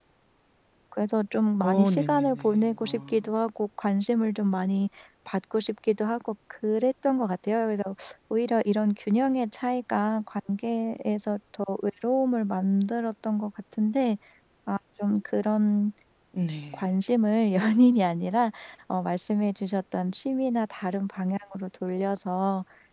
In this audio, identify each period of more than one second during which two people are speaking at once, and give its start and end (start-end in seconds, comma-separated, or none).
1.6-3.2